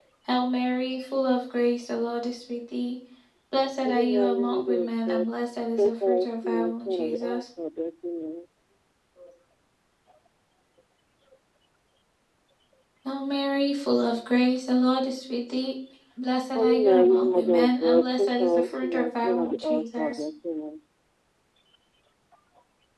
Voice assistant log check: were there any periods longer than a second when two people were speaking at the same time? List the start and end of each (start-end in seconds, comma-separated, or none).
3.8-5.3, 5.7-7.4, 16.5-20.2